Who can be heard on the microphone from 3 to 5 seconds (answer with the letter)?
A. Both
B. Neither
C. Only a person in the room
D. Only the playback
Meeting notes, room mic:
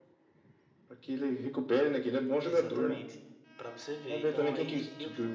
A